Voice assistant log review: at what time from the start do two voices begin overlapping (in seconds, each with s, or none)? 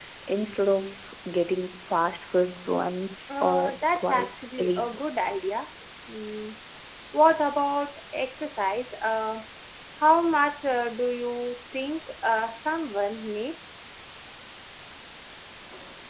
3.3 s